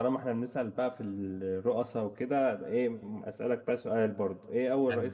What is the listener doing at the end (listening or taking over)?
listening